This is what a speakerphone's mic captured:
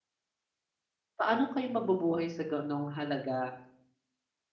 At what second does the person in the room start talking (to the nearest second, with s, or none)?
1 s